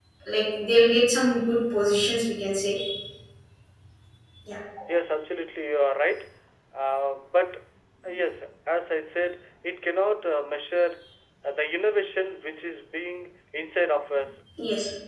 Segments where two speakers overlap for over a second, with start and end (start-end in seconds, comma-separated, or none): none